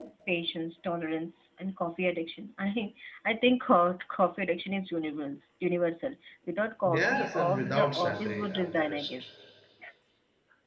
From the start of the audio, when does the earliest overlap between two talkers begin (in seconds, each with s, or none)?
6.8 s